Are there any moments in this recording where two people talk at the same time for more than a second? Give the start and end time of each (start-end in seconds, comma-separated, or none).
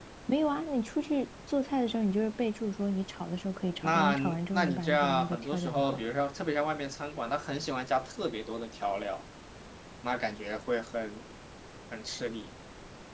3.8-6.0